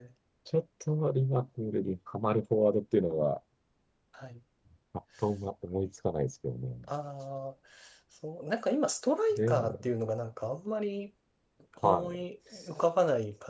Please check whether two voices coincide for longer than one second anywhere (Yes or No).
No